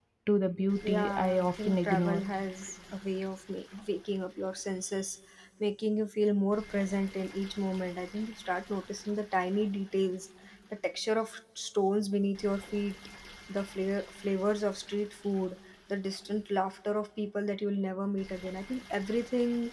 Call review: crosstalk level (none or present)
present